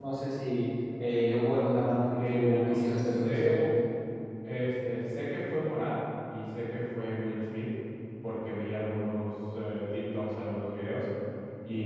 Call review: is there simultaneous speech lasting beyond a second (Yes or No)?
Yes